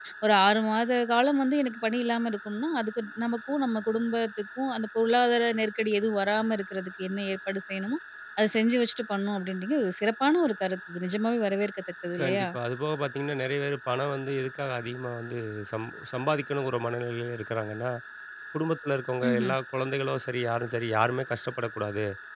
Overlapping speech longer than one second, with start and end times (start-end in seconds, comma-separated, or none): none